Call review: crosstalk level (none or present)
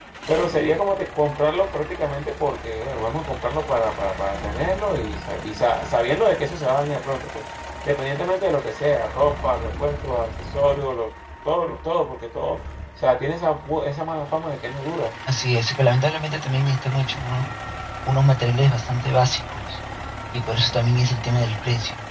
none